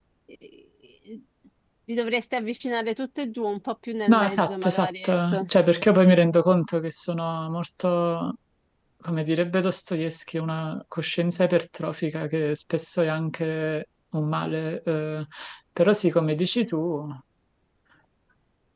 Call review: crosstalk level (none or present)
present